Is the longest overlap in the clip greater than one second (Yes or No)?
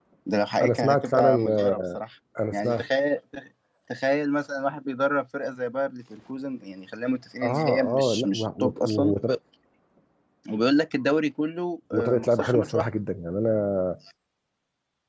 Yes